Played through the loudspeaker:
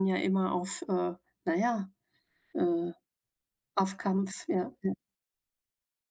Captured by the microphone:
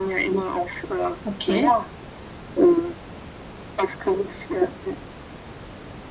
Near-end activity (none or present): present